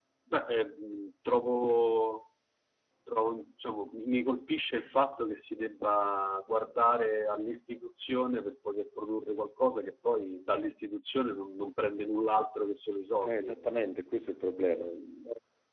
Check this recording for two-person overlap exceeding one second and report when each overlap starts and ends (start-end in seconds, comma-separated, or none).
none